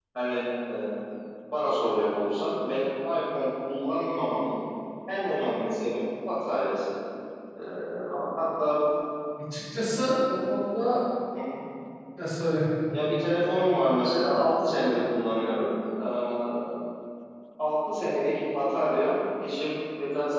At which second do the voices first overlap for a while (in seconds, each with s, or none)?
none